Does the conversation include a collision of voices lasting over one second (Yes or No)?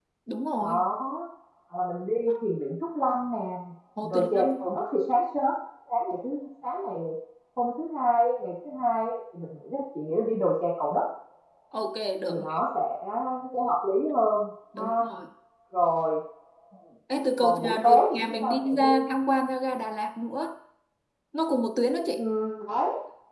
Yes